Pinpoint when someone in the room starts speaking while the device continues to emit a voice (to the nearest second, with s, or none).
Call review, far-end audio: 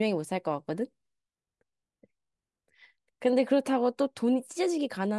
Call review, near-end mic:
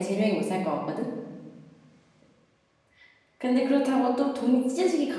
none